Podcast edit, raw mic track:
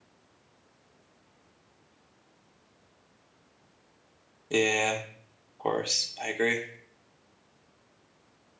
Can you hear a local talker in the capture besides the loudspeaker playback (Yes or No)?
Yes